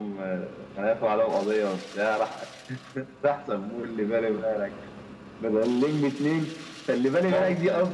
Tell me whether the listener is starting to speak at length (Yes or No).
No